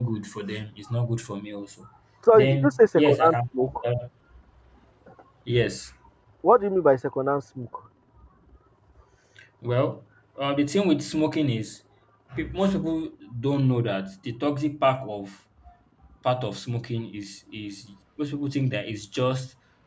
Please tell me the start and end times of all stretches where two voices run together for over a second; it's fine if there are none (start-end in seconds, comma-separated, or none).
2.3-3.7